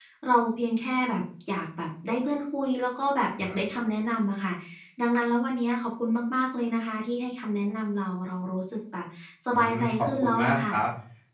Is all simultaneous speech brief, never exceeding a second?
No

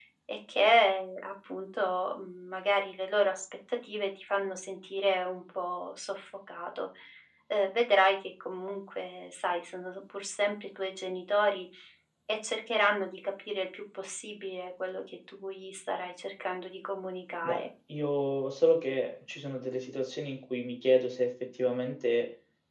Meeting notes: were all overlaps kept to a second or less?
Yes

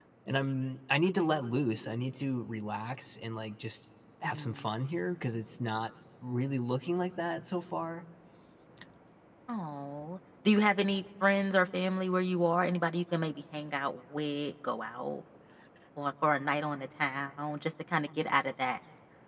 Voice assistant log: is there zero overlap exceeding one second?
Yes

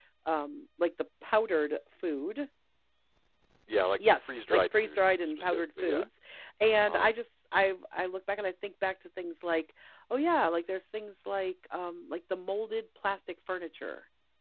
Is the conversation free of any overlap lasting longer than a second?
No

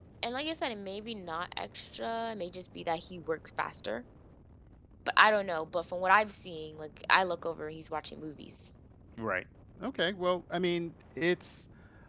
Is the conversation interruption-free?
Yes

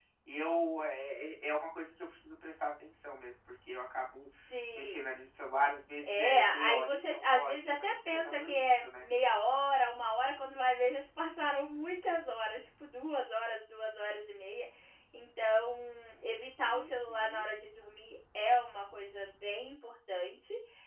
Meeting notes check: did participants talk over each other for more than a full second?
Yes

